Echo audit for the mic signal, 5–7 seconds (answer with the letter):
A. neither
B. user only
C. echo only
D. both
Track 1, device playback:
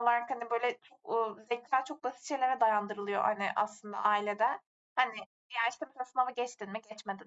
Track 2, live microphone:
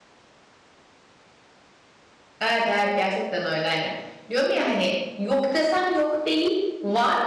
B